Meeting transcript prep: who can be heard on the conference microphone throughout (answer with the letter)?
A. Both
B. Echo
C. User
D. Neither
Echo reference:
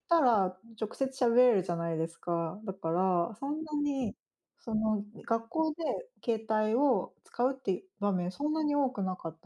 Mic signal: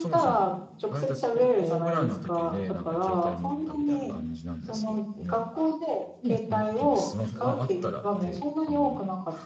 A